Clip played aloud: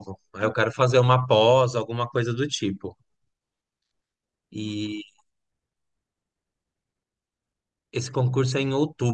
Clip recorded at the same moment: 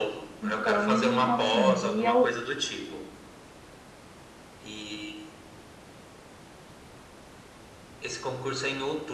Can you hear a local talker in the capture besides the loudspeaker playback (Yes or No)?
Yes